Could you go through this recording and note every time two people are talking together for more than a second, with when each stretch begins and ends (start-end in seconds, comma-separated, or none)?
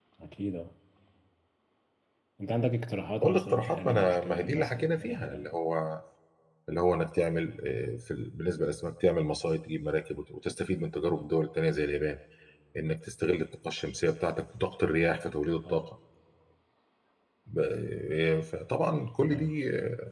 3.2-5.5